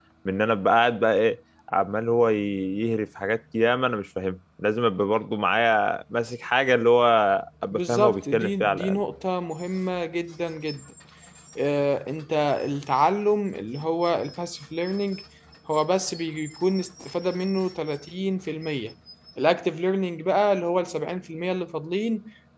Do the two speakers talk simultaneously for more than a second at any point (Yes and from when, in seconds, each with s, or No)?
Yes, from 7.7 s